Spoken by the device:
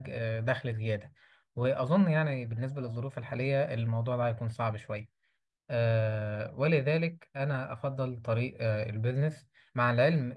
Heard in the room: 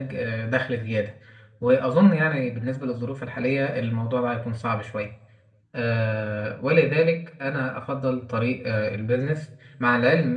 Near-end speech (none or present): none